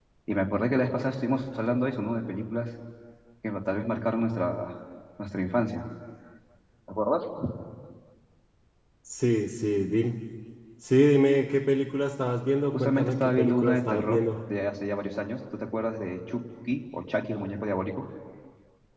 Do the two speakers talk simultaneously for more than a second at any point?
Yes, from 12.7 s

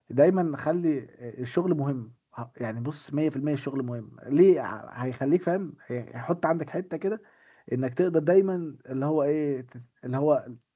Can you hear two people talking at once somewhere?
No

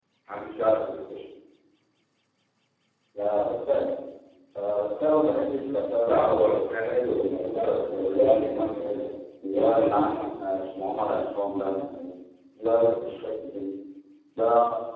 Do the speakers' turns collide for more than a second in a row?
Yes, from 6.0 s

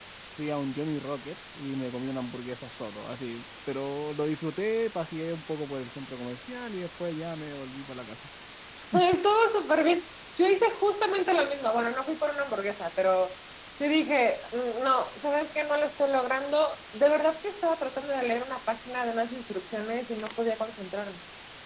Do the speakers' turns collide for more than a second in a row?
No

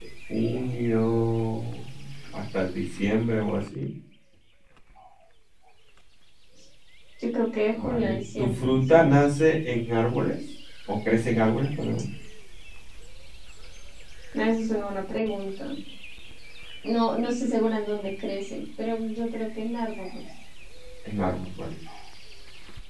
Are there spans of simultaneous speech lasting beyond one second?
Yes, from 7.7 s

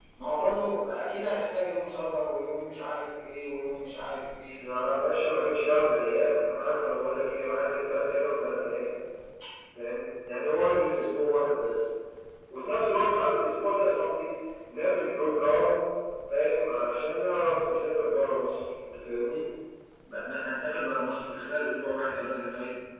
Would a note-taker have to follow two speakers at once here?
No

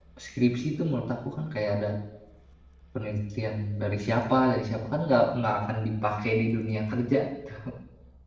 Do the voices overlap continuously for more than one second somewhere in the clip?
No

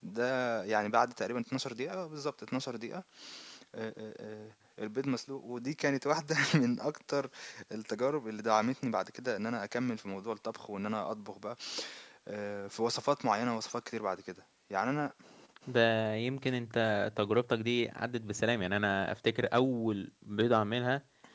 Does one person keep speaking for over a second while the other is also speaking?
No

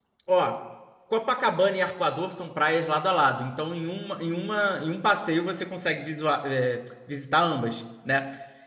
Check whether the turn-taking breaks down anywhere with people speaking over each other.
No

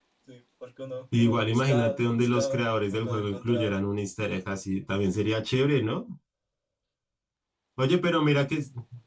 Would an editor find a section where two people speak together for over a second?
Yes, from 1.2 s

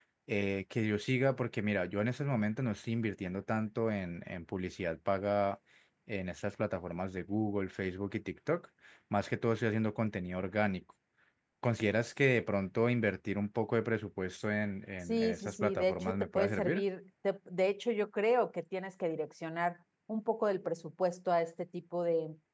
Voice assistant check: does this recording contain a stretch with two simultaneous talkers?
Yes, from 15.1 s

